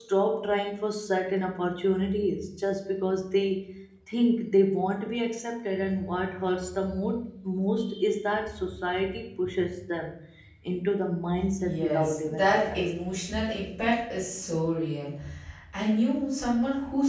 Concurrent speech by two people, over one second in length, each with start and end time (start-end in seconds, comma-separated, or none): 11.6-13.2